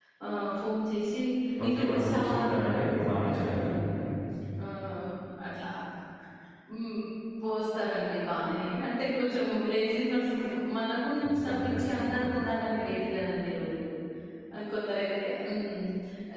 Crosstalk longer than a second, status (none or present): present